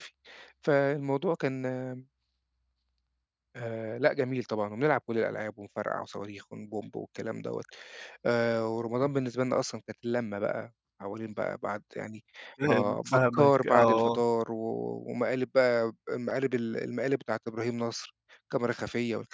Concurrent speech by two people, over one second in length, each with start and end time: 12.7-14.2

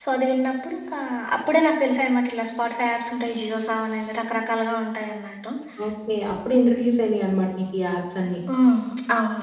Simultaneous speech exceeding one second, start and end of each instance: none

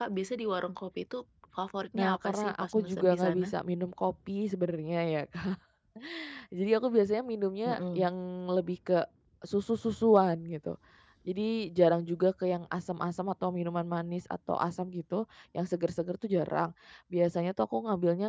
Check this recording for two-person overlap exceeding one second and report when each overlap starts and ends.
1.9-3.5

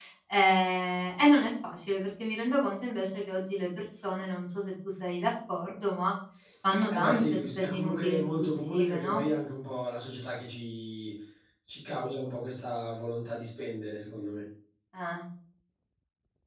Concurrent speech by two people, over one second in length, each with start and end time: 6.9-9.2

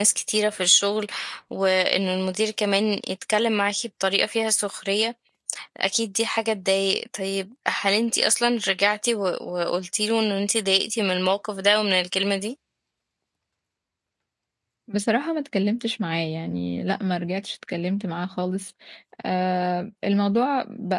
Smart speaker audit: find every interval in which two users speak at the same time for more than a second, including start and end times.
none

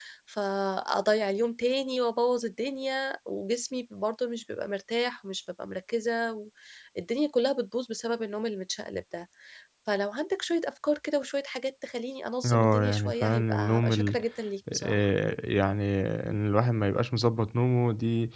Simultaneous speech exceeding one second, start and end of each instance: 12.4-14.2

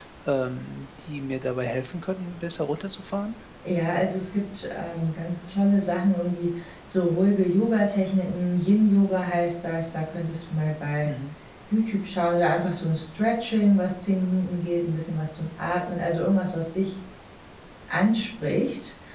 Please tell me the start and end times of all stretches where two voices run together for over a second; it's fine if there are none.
none

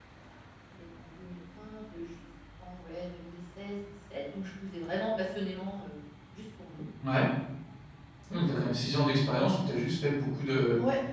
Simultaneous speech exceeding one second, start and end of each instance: none

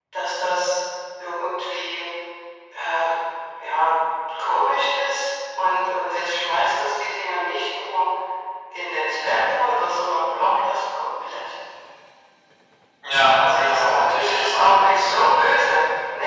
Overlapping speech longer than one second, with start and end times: 13.4-15.0

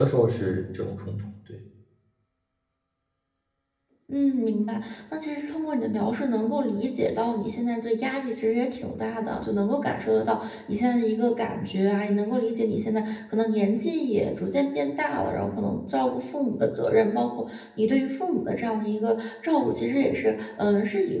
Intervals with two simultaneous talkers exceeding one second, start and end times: none

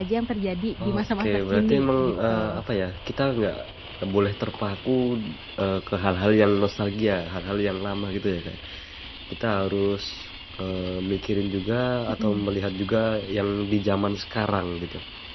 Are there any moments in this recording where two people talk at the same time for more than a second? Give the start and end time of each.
0.8-2.6

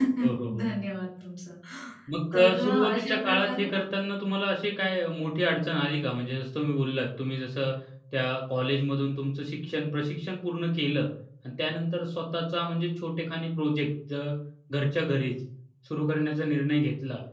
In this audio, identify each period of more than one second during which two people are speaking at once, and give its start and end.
2.3-3.8

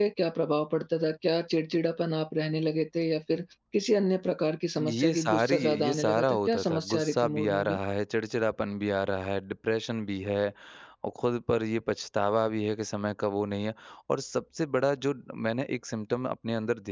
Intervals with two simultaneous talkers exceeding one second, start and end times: 4.8-7.8

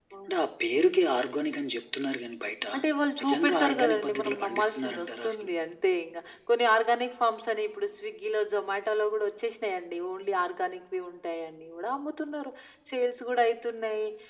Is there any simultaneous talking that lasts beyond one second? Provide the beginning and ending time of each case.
3.2-5.5

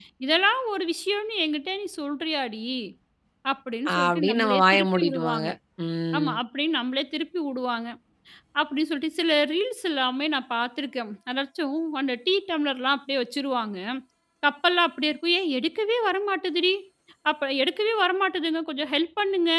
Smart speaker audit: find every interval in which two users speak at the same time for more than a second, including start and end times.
4.0-5.5

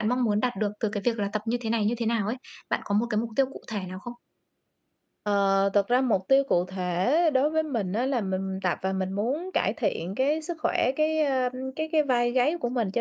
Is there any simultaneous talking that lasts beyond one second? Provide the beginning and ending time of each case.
none

